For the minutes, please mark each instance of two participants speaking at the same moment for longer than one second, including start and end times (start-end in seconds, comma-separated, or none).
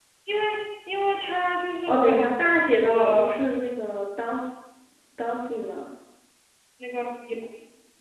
1.9-3.4